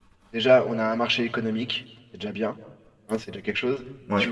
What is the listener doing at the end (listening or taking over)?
listening